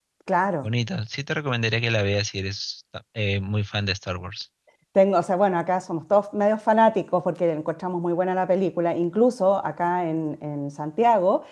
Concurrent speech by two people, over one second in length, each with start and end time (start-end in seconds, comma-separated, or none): none